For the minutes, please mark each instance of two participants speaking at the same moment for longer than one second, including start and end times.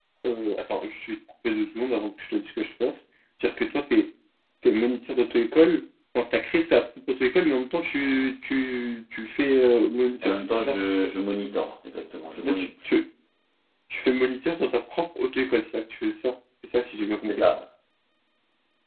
none

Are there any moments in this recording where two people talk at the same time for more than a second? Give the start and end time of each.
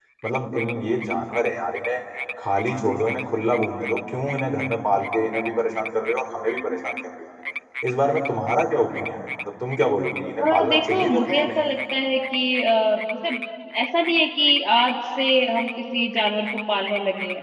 10.4-11.7

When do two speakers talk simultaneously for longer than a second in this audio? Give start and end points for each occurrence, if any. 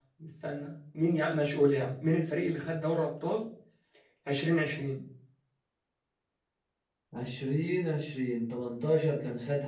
none

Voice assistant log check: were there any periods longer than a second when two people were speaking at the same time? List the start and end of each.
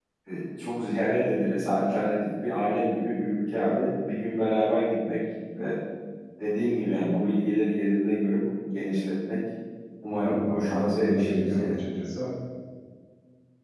10.1-11.8

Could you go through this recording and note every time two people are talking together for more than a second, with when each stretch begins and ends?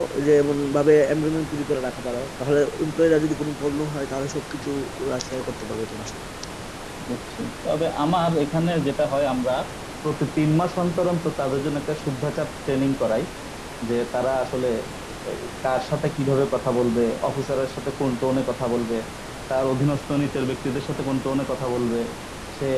none

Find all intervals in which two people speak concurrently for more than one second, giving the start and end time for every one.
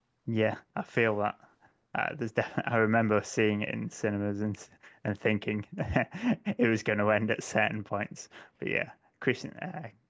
none

